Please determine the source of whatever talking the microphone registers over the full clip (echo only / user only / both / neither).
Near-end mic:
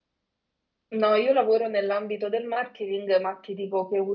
user only